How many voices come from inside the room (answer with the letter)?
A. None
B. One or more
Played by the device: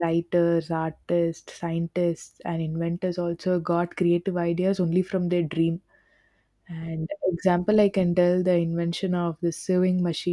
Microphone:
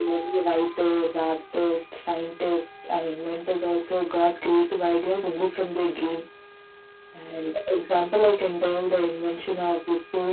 A